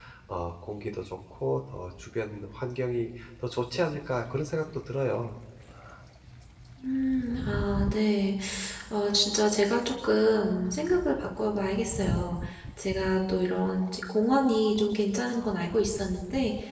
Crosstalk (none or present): none